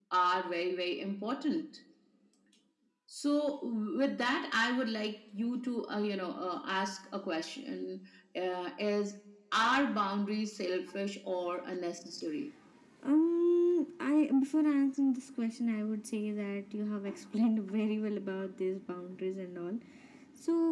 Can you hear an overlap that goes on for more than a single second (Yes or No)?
No